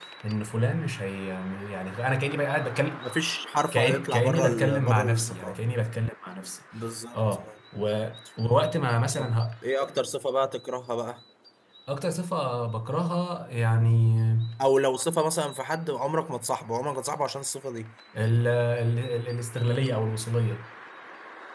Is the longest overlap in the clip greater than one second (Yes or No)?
Yes